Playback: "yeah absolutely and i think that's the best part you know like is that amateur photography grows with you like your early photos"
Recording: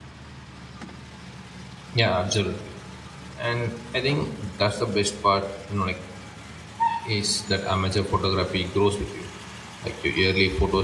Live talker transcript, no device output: none

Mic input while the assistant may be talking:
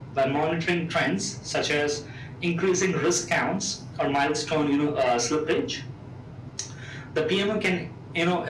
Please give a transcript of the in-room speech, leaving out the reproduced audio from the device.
none

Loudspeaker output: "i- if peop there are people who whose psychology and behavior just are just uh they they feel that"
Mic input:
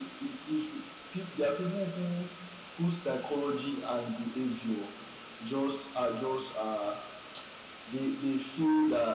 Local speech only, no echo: none

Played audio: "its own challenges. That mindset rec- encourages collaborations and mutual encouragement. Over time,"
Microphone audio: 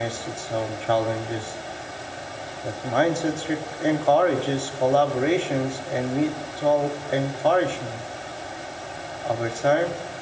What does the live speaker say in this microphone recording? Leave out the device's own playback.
none

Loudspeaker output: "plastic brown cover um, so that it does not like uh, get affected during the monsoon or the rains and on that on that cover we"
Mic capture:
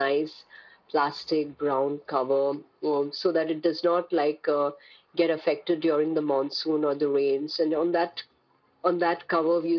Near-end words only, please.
none

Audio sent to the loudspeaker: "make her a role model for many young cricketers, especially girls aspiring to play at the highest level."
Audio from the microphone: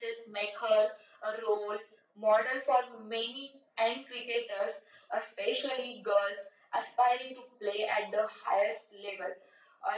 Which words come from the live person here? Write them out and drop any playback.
none

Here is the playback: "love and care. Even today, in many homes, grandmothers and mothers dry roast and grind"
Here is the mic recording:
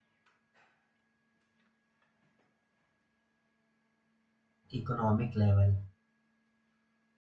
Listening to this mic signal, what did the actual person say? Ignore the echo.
economic level

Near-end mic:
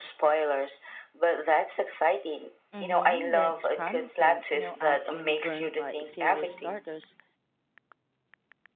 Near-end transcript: Mm-hmm, that's promising. You know, I've been burned by serious starters

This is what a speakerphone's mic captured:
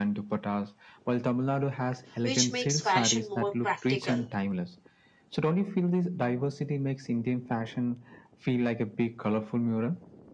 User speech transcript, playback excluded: which makes fashion more practical.

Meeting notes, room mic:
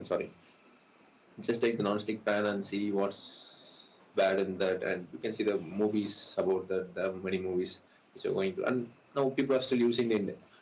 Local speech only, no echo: none

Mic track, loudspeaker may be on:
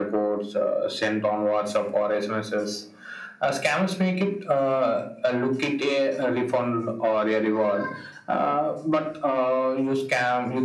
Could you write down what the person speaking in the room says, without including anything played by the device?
none

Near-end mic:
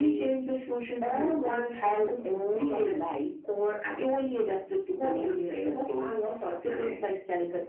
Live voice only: none

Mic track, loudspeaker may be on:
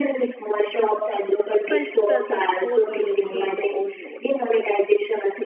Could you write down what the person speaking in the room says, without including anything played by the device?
felt stressed and exposed during the exchange of old notes.

